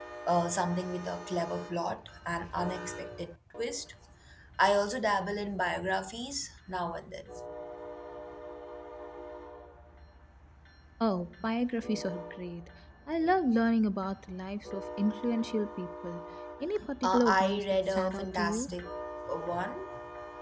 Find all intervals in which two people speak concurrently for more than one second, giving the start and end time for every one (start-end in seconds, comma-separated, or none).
17.0-18.7